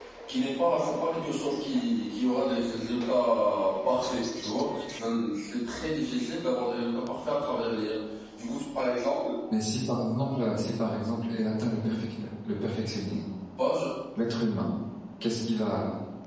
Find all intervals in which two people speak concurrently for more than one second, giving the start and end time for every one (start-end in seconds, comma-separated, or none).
none